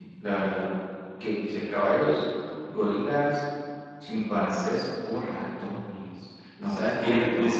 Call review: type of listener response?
taking over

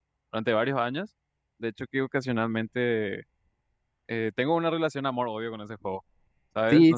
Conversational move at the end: taking over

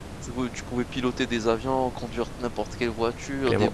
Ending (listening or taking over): taking over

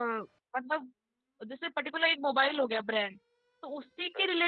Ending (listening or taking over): listening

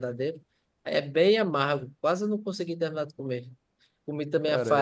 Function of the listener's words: listening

